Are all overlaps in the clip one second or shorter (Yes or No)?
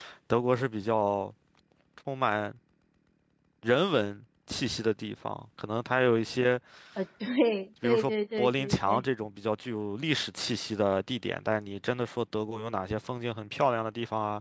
No